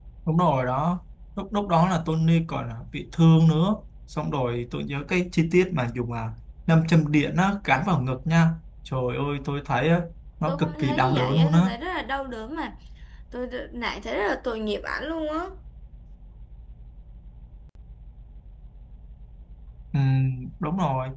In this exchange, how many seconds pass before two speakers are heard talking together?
10.5 s

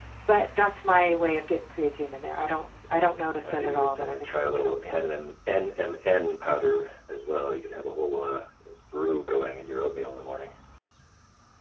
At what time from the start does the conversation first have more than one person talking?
3.4 s

